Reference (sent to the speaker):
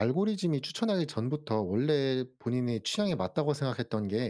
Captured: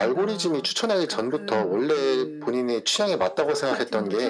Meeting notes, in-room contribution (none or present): present